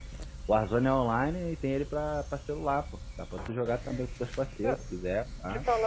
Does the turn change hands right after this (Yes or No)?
Yes